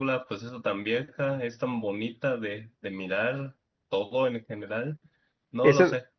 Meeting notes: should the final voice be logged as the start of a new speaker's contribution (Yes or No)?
No